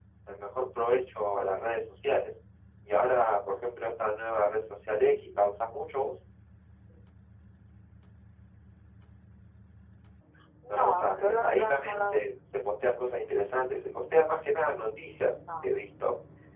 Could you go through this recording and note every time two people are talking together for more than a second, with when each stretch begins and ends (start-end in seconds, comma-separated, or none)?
10.7-12.3